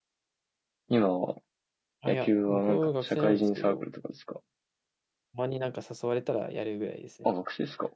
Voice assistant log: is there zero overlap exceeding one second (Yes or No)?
No